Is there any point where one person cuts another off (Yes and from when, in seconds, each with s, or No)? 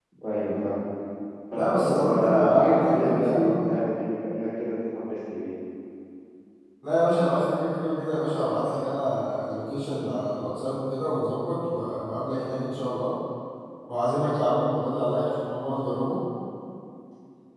Yes, from 1.5 s